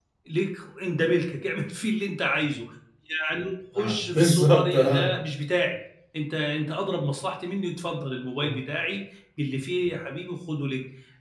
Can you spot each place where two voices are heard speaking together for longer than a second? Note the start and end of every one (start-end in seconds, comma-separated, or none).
3.8-5.1